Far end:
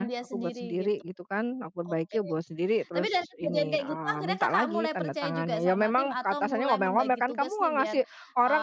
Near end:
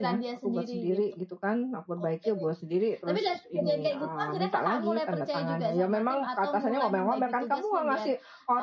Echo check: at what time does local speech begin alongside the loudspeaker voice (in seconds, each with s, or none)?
none